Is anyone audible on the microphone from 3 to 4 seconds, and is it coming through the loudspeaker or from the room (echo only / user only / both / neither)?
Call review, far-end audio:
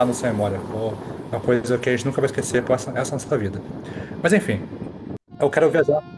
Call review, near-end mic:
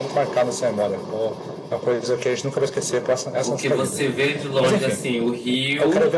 both